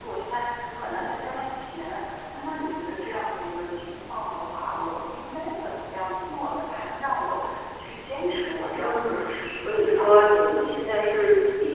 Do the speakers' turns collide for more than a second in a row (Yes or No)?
Yes